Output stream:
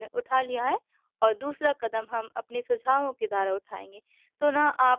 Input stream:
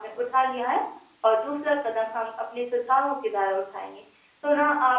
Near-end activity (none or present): none